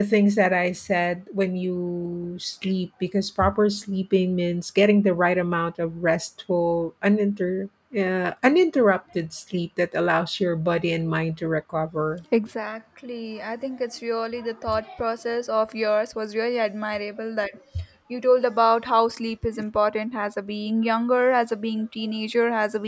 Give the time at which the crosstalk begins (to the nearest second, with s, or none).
none